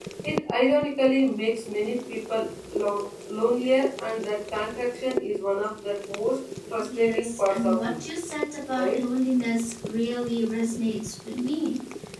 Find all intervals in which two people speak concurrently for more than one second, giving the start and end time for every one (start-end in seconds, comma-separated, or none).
6.8-8.0